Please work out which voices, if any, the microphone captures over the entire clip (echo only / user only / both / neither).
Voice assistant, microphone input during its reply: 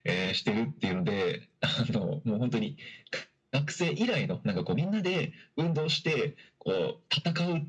echo only